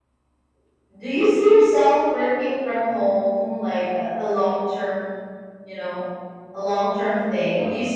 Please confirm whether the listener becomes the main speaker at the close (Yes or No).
No